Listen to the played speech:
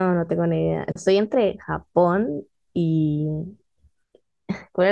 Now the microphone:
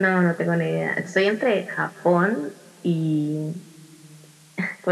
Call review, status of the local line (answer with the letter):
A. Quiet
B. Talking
A